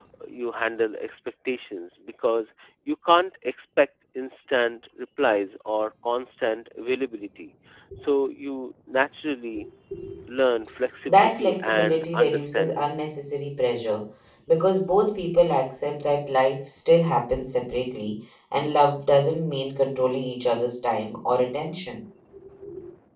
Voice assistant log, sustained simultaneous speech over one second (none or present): present